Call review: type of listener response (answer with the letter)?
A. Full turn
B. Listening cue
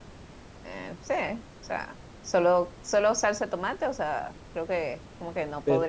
B